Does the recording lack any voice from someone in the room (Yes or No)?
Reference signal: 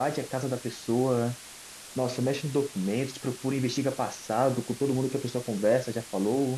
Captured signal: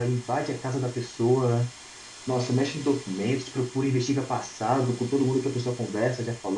Yes